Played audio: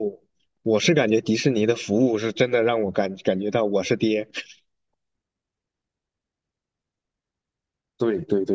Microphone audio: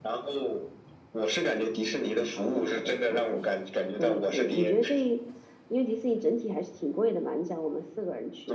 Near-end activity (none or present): present